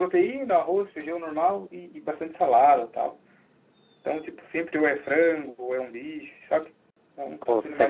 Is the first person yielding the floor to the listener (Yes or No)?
Yes